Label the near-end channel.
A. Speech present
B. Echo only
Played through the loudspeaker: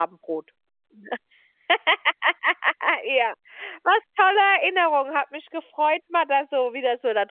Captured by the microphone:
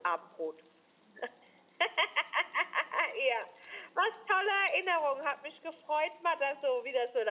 B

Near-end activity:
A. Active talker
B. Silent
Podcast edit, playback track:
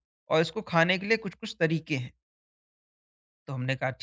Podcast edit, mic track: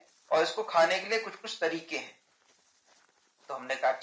B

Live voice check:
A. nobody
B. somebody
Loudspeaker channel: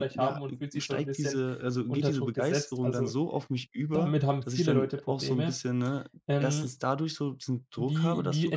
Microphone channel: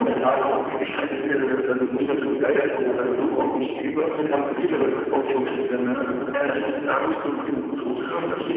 A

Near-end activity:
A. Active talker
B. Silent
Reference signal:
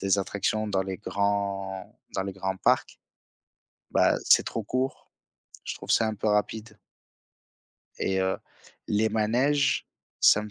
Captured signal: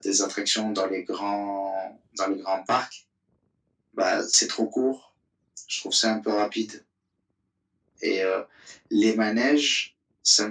B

